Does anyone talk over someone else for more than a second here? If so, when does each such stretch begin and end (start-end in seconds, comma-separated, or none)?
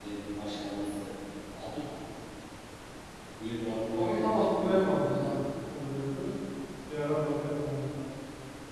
3.9-5.3